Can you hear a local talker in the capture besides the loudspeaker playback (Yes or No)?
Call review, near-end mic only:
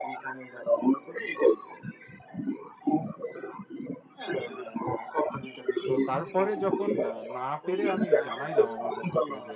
Yes